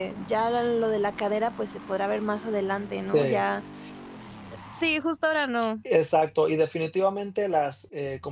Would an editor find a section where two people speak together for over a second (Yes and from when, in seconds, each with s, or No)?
No